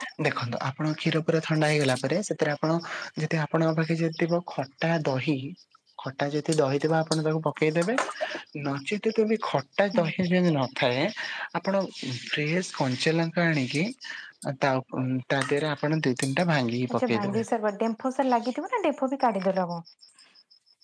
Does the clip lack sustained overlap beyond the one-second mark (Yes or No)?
Yes